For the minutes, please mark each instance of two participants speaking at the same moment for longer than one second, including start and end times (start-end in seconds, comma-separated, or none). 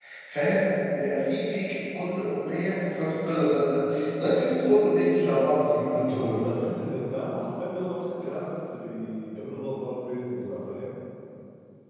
none